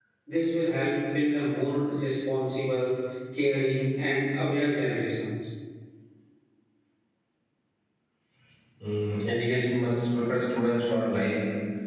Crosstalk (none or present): none